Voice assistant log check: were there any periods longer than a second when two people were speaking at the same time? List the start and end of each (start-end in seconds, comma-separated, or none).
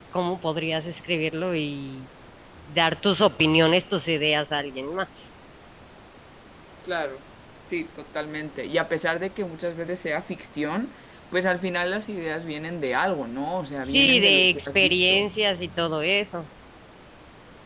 13.8-15.3